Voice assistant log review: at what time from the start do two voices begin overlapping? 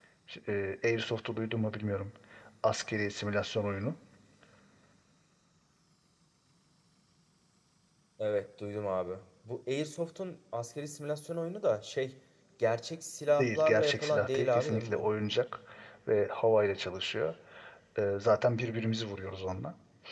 13.4 s

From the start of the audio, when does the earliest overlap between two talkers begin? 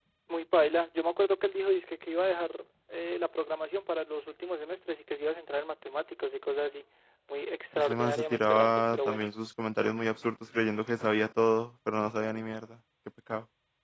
7.9 s

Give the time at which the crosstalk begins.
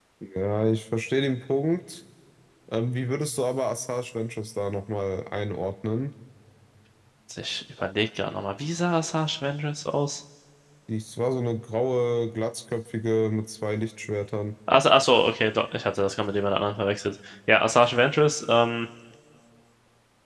none

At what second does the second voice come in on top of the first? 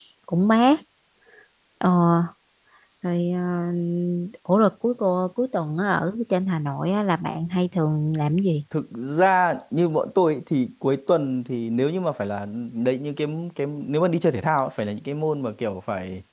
none

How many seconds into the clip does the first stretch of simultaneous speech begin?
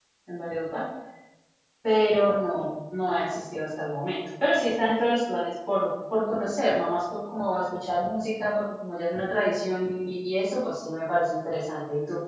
none

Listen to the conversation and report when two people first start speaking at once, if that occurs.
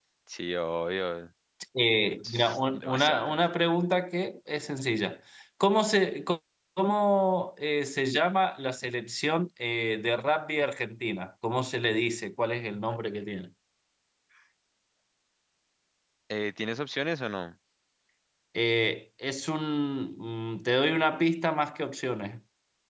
2.2 s

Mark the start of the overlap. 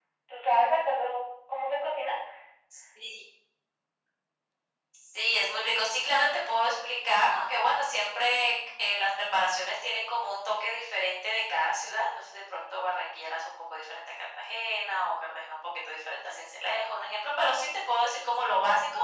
none

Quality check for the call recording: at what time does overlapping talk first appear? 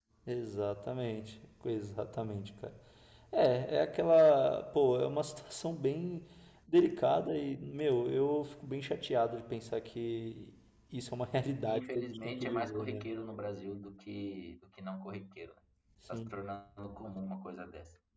11.7 s

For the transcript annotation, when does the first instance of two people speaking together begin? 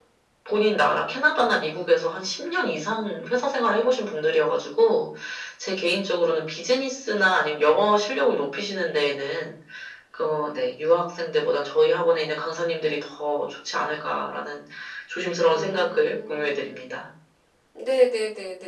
15.5 s

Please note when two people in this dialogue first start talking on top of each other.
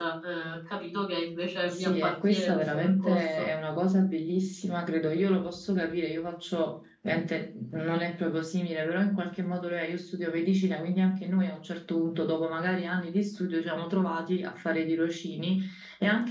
1.6 s

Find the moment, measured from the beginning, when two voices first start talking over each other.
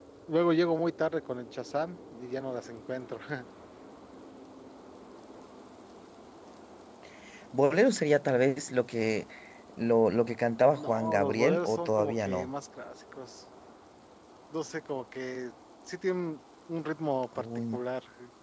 10.8 s

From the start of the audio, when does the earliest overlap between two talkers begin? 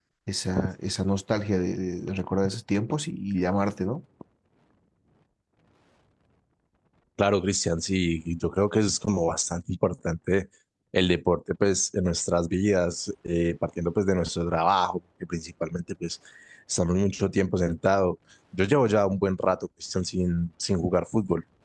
none

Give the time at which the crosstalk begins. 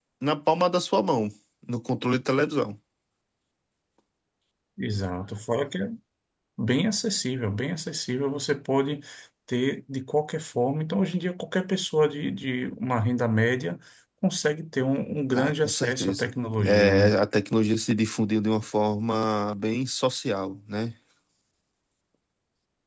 15.3 s

